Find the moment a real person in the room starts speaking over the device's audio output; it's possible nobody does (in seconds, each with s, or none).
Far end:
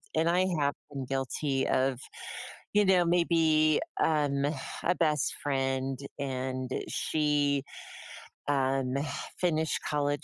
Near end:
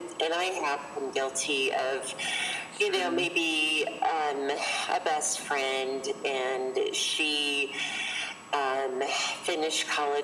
2.7 s